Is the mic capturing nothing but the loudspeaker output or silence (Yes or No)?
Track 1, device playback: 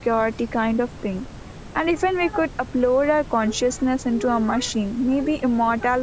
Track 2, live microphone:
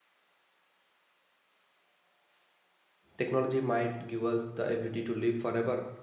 No